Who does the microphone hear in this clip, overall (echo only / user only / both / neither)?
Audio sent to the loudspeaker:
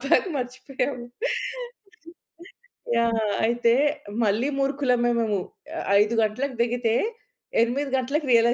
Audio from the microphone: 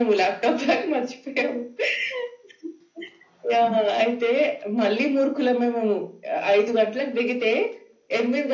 echo only